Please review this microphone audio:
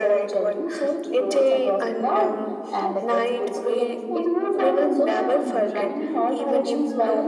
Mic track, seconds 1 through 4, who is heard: both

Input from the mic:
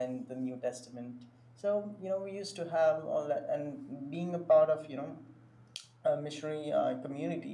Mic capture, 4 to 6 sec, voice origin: echo only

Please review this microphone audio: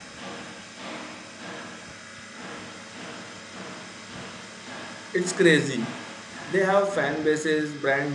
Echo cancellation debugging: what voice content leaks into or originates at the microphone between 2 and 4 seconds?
neither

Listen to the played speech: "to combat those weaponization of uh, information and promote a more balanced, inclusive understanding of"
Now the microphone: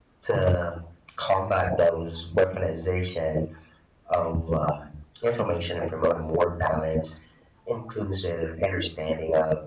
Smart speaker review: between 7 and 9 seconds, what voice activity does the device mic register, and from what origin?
echo only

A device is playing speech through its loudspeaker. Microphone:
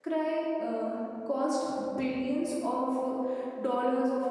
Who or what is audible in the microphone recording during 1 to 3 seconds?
user only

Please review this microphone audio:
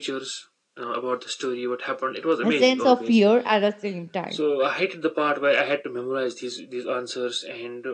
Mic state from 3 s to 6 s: both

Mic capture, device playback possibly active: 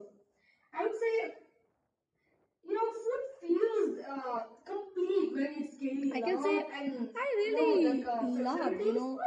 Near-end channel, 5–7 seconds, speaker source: both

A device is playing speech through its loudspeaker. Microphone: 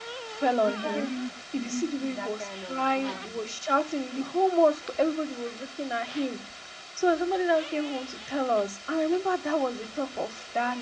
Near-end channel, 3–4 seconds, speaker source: both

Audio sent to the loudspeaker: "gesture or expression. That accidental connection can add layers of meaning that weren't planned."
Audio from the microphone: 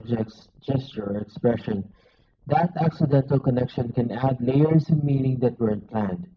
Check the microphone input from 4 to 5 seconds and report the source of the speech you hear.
echo only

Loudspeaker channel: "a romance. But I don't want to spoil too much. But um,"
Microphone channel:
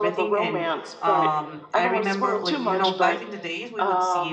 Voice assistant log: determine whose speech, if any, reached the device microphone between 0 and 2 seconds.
both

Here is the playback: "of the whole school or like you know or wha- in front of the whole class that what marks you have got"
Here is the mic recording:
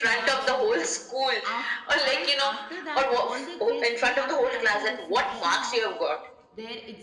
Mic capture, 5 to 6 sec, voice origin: both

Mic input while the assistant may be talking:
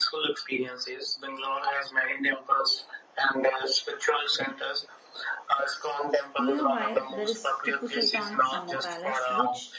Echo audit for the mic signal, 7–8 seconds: both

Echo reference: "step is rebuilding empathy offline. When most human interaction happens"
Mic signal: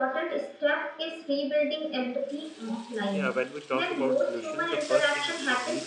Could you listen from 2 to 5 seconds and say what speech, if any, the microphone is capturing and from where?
both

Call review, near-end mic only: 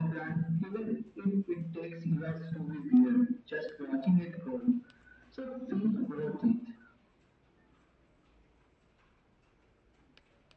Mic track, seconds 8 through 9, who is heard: neither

